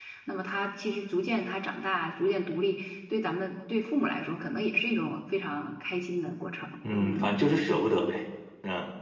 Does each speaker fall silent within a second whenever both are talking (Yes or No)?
Yes